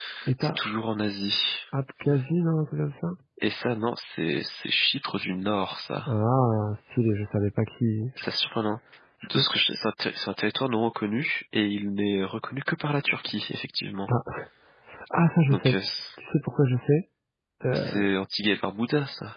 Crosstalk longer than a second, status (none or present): none